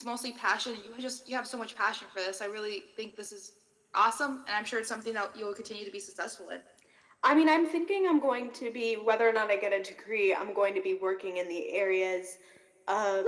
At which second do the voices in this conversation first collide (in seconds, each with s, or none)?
none